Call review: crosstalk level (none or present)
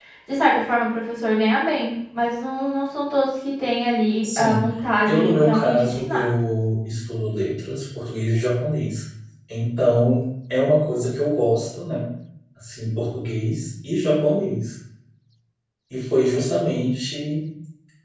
present